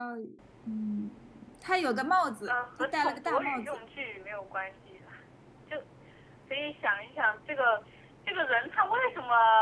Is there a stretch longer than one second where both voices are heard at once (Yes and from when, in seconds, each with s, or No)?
Yes, from 2.5 s